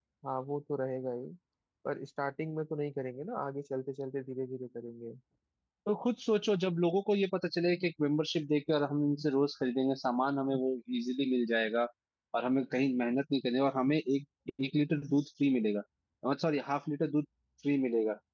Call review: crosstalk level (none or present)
none